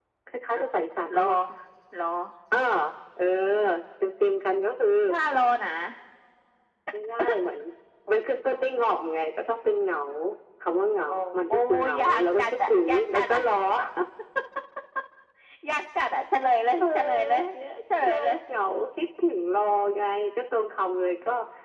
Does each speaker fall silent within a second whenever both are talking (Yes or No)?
No